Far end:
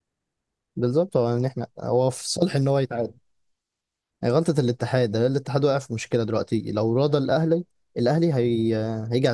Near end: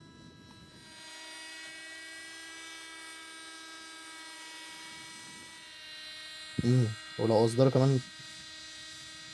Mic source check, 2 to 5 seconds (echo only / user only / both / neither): neither